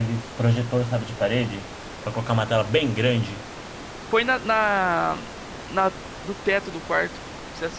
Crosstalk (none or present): none